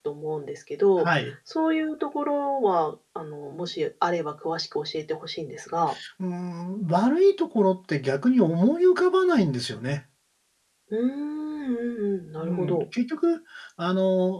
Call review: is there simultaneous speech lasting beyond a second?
No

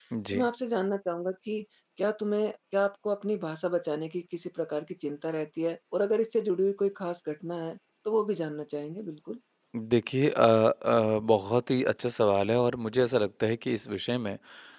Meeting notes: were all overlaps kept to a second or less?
Yes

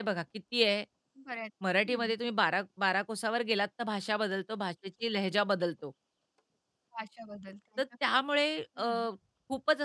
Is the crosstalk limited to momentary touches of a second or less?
Yes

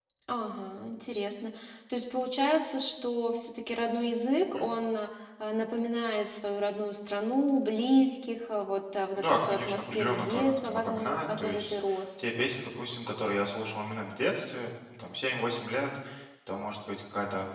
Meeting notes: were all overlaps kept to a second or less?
No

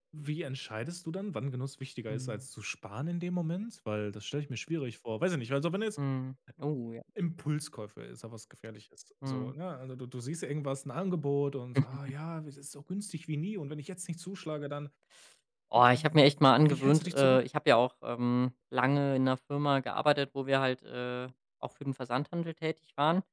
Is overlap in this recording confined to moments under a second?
No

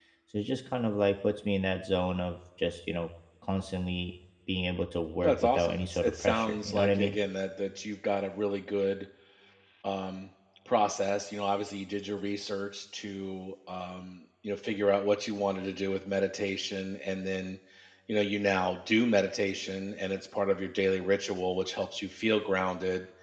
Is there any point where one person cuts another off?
Yes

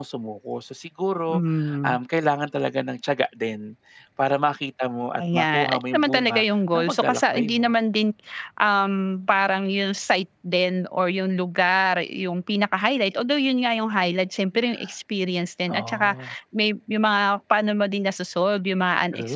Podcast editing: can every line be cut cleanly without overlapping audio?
No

